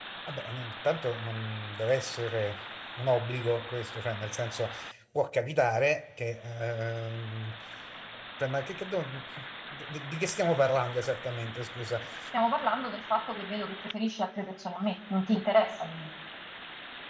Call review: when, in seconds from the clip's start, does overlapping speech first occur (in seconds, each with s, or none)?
none